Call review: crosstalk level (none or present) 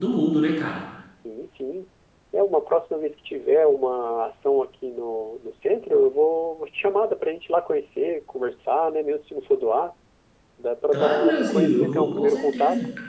present